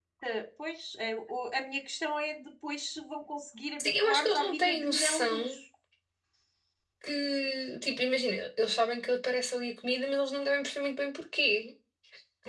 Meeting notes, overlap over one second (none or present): present